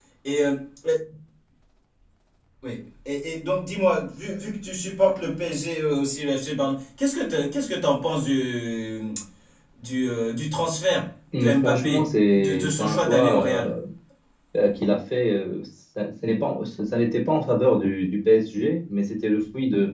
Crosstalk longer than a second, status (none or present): present